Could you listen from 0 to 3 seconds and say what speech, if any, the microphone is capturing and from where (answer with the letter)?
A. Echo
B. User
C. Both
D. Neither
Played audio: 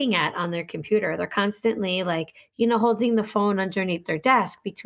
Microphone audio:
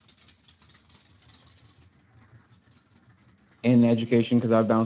D